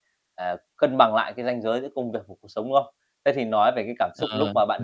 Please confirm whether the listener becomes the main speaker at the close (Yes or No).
No